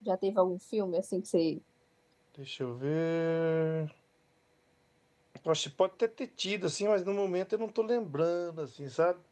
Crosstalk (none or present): none